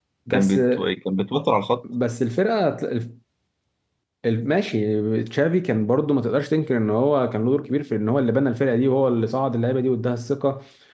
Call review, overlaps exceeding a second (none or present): none